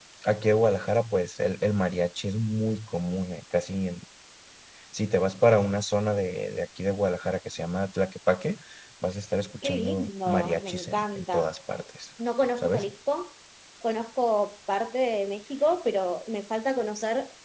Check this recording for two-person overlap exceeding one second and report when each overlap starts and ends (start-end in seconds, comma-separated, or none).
9.6-11.5